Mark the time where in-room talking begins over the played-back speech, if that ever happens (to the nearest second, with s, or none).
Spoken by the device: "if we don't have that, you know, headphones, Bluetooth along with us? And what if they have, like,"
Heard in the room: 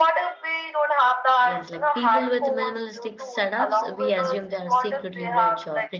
1 s